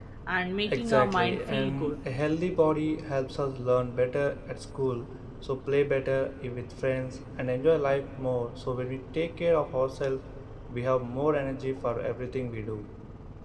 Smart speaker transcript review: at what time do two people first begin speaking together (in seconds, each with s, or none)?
0.7 s